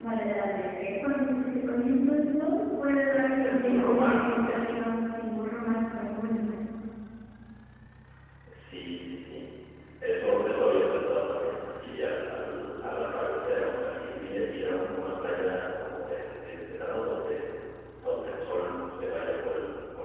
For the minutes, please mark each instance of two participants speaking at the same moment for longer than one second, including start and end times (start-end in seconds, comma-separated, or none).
3.4-4.8